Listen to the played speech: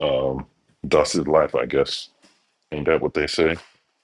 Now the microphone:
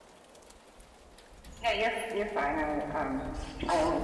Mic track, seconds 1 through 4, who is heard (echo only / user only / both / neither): user only